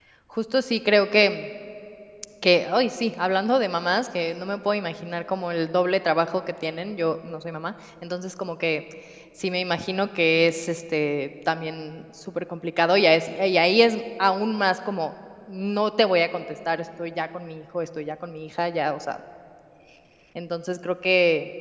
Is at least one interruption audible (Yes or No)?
No